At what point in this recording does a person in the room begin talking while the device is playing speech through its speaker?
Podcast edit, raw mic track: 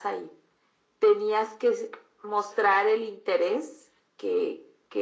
none

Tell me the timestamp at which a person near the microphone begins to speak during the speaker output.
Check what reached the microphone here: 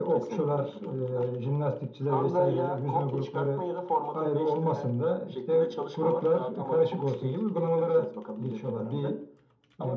none

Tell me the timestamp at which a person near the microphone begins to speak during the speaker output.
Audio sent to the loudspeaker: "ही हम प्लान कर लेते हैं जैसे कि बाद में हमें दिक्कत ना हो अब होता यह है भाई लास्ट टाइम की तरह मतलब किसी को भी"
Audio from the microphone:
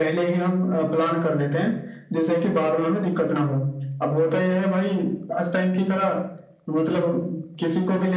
none

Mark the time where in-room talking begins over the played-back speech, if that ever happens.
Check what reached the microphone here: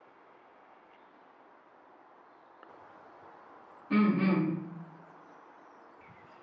3.9 s

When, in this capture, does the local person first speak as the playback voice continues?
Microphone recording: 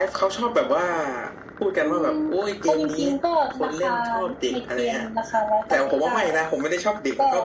none

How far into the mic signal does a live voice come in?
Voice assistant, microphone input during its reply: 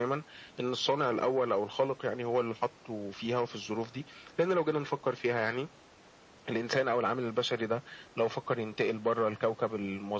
none

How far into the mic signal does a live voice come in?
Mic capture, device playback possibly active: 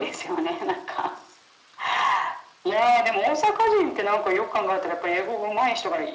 none

